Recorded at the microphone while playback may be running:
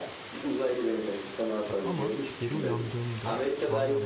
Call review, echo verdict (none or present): present